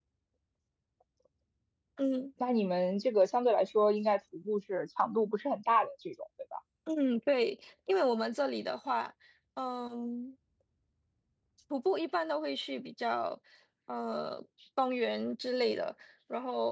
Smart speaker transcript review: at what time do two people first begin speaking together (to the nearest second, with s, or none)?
none